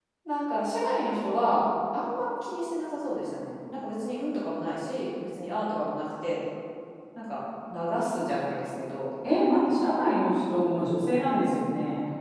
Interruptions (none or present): none